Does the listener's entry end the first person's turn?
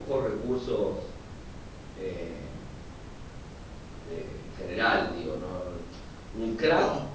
No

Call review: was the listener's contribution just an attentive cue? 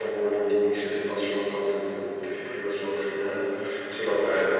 No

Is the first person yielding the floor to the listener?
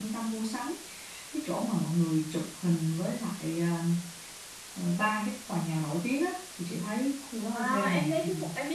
Yes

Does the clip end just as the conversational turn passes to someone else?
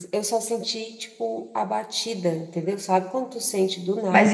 Yes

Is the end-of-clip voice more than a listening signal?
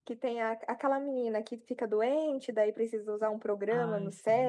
No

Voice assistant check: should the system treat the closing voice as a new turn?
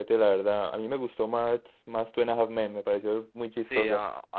Yes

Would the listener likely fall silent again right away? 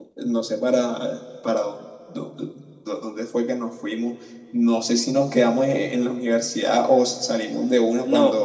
No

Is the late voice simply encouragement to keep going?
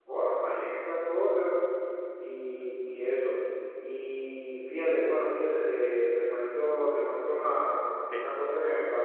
Yes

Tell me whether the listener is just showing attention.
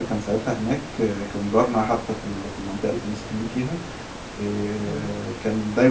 Yes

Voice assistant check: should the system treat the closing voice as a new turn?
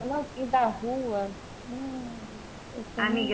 Yes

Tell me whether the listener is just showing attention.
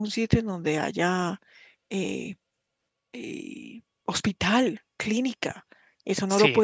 No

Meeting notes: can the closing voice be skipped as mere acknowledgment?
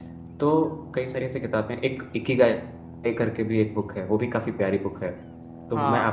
Yes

